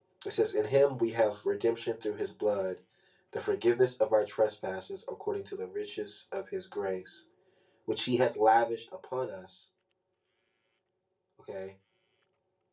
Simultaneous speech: No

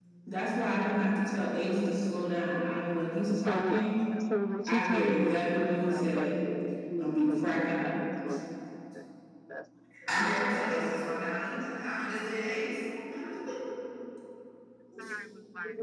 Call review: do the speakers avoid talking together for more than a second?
No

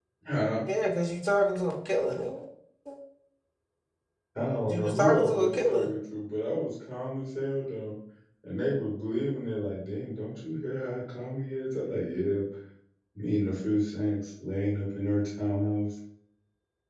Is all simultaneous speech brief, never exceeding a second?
No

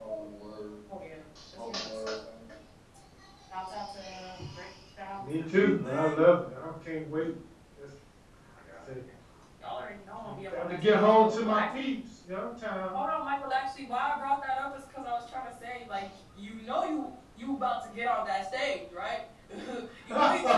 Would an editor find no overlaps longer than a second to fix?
No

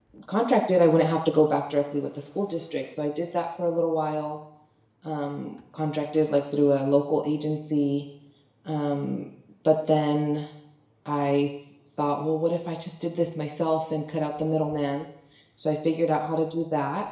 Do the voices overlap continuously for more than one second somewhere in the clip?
No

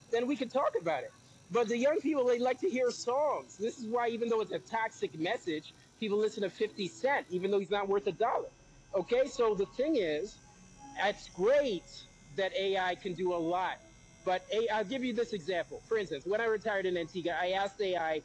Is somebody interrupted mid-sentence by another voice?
No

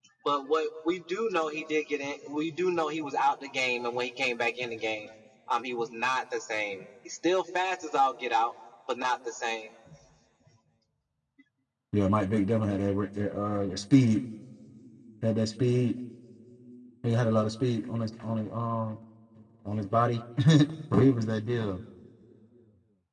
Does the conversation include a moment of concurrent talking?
No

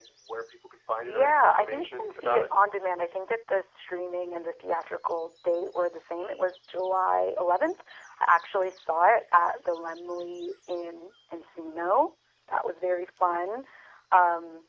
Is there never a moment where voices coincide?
No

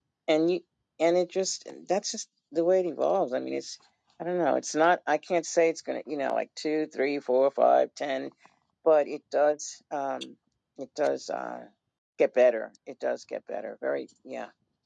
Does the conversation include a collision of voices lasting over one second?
No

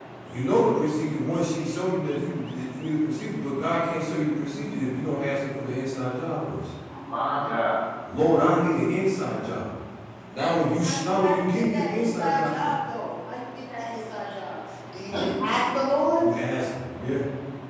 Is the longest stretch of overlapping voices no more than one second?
No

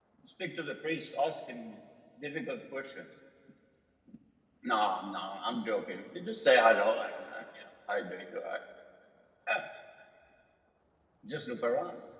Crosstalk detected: No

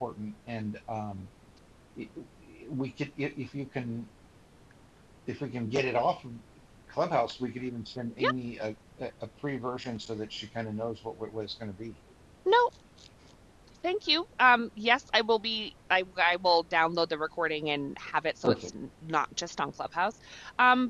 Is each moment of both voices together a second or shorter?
Yes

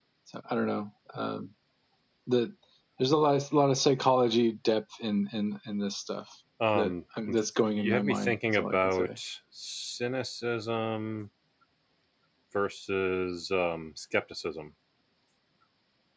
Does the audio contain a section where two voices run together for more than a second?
Yes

